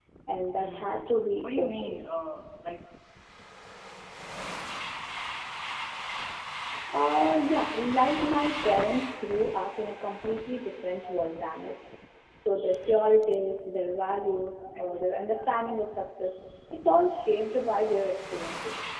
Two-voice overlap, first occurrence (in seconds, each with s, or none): 0.6 s